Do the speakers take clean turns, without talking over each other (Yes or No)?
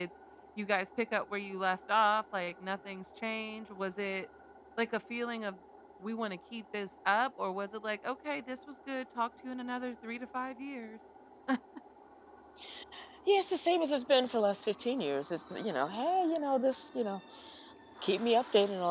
Yes